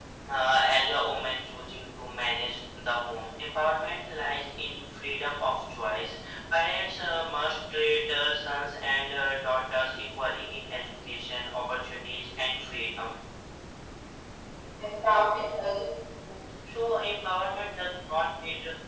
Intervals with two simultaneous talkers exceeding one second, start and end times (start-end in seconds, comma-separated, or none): none